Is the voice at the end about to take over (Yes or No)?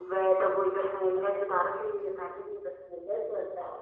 Yes